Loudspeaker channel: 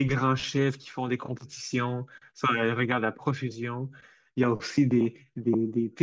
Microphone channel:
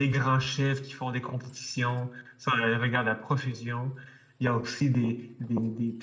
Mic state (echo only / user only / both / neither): echo only